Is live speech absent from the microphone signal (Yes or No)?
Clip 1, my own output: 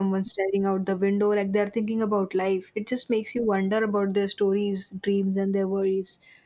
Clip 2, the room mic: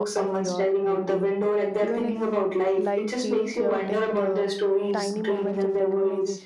No